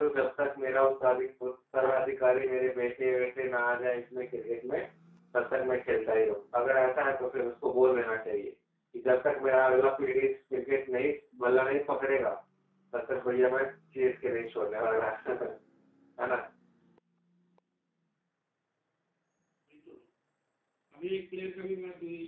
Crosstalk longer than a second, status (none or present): none